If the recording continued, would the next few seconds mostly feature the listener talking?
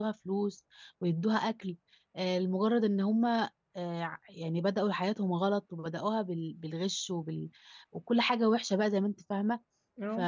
No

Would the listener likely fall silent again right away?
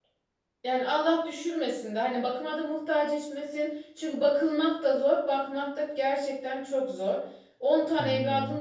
Yes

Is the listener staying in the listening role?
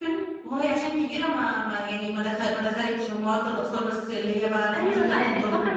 No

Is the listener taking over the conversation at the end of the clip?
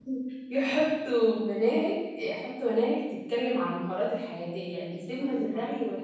No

